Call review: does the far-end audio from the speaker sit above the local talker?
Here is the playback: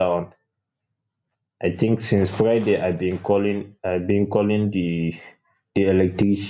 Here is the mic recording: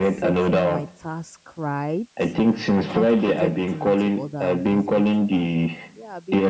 Yes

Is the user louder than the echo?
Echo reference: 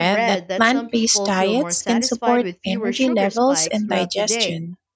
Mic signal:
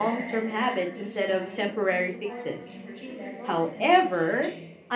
Yes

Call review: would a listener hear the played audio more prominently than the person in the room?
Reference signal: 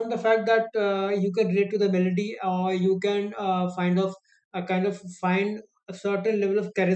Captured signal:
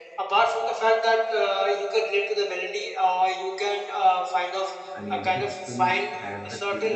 Yes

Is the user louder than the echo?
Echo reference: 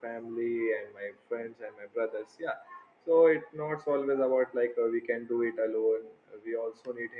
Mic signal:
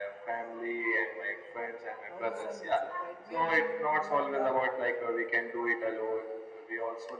No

